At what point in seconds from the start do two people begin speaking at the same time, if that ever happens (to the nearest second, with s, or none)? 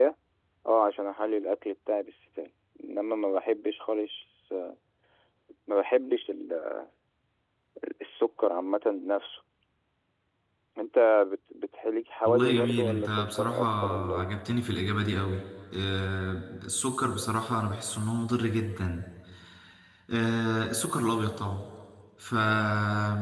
12 s